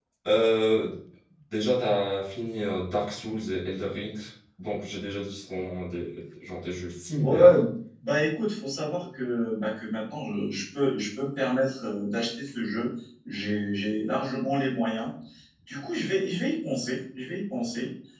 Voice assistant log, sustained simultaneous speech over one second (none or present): none